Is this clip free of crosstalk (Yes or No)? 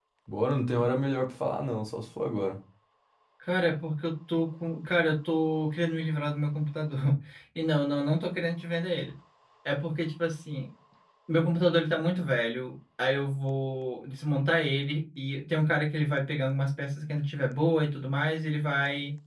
Yes